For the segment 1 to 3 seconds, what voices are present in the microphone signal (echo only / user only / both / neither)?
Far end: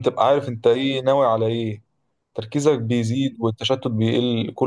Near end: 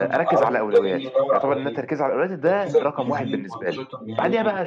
both